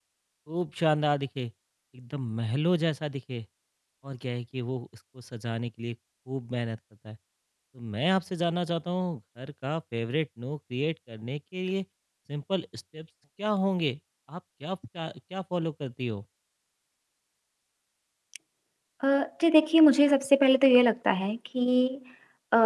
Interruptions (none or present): none